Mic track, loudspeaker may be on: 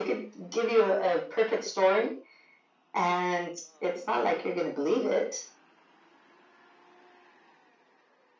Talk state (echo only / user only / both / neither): echo only